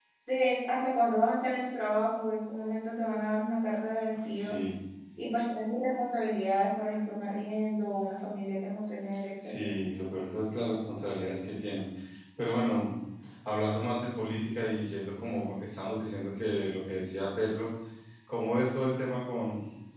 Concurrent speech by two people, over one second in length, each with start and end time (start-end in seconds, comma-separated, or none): none